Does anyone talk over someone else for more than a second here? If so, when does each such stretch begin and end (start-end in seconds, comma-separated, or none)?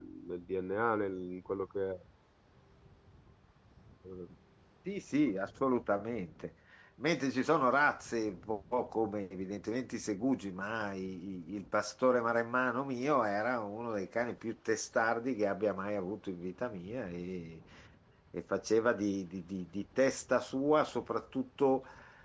none